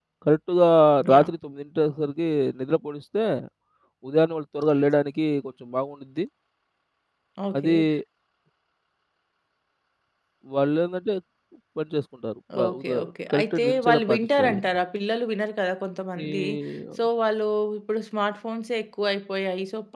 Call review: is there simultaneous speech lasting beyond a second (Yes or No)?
Yes